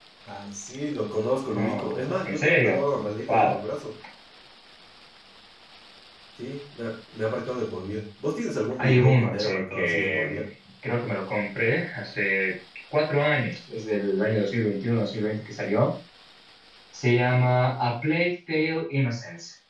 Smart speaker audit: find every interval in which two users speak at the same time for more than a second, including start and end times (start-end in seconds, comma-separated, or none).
1.5-2.8, 8.8-10.4